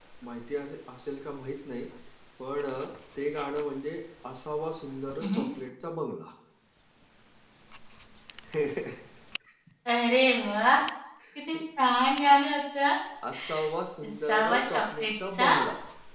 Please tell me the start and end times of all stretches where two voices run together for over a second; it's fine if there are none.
14.1-15.5

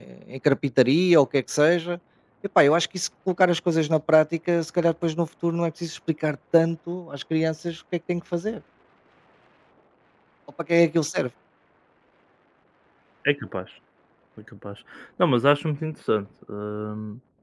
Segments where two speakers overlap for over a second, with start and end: none

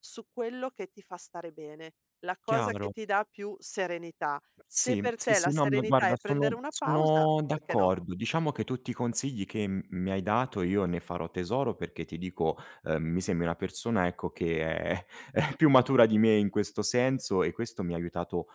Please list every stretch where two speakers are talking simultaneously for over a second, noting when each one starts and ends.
4.8-7.9

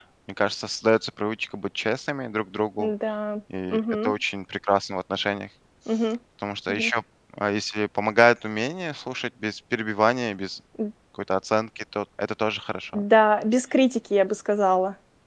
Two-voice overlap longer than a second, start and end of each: none

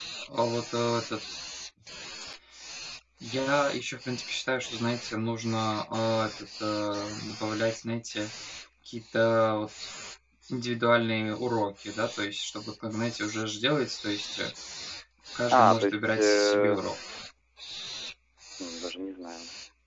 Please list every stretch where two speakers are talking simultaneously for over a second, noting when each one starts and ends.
15.5-16.8

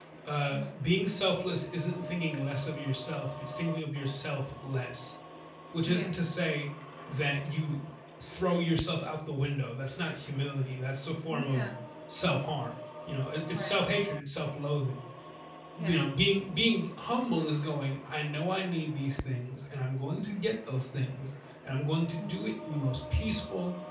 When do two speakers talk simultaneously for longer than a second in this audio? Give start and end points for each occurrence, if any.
none

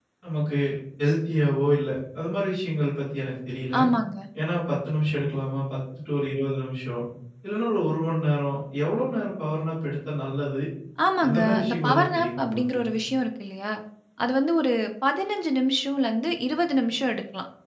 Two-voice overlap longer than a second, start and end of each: 11.2-12.8

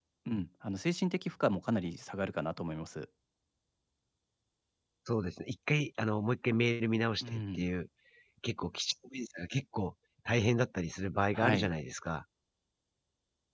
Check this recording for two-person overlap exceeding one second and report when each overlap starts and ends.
none

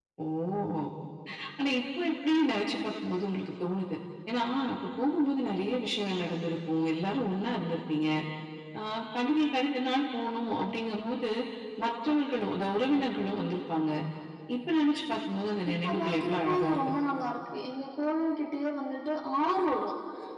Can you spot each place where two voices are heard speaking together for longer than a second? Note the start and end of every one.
15.7-16.9

